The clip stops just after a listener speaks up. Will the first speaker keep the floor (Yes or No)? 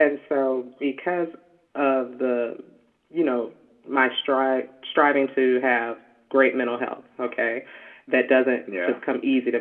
Yes